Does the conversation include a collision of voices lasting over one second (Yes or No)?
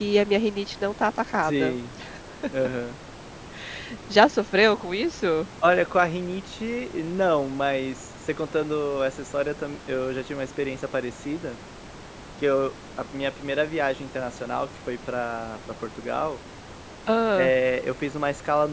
No